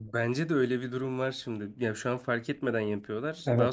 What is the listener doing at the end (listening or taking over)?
taking over